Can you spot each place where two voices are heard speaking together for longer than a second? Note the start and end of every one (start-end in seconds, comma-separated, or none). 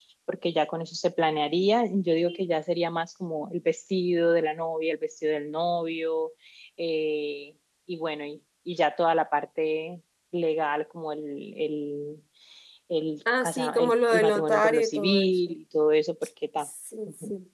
13.4-15.3